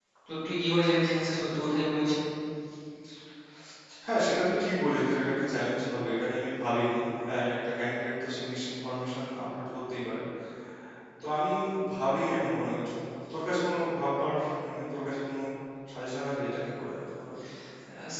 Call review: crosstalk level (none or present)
none